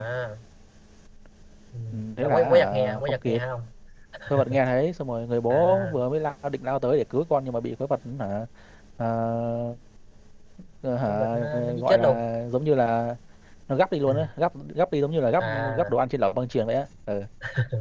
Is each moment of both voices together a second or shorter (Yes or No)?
No